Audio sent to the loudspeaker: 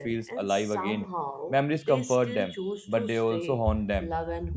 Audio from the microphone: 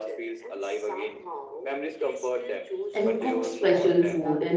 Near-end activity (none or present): present